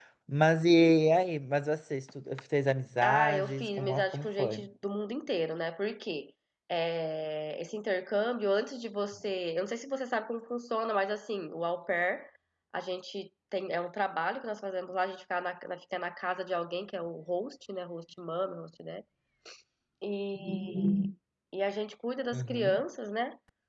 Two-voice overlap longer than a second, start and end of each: 3.0-4.6

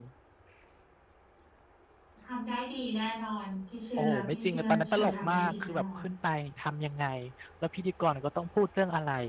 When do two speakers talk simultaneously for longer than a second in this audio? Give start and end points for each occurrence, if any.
4.0-6.0

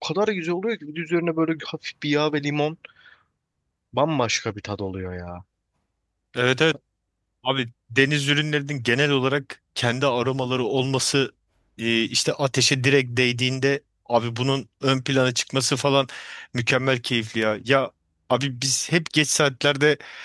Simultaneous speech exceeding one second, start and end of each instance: none

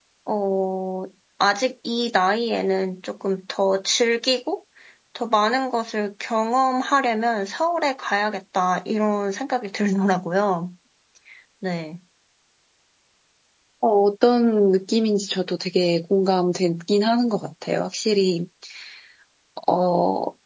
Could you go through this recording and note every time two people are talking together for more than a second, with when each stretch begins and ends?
none

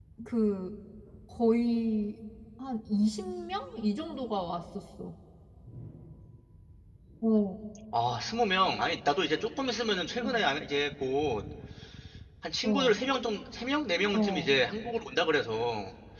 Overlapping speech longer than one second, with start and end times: none

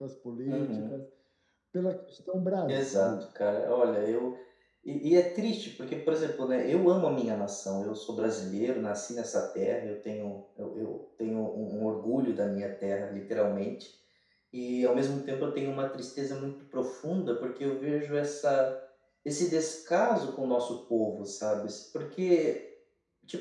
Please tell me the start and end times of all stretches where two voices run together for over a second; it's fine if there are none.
none

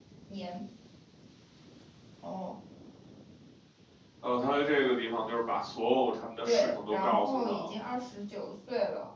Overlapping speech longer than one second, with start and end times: 6.4-7.7

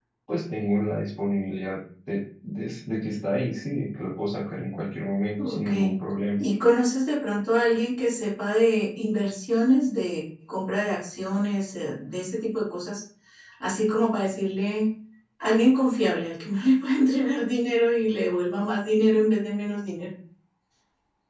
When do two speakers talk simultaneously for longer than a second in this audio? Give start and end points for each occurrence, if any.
none

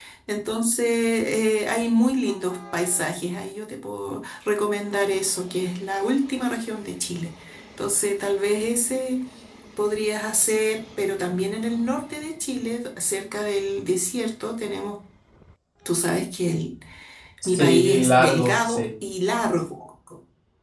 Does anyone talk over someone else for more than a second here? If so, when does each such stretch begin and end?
17.4-18.9

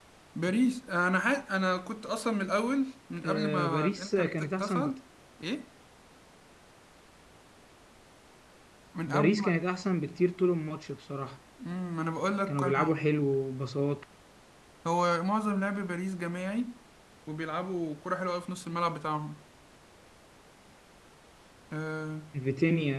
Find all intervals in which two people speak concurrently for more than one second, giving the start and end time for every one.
3.2-4.9

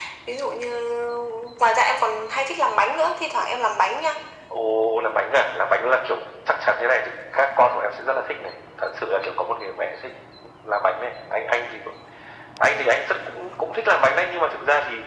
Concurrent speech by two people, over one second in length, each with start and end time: none

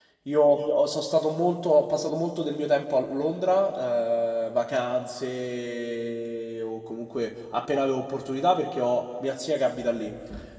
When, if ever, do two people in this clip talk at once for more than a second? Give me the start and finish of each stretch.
none

